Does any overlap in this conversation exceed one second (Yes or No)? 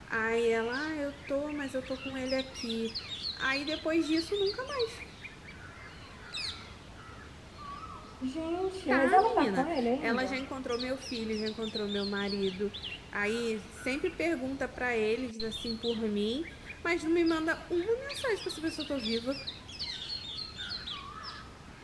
Yes